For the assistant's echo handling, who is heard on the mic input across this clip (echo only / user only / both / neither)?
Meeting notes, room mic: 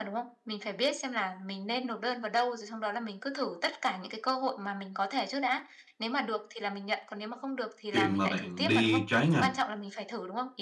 both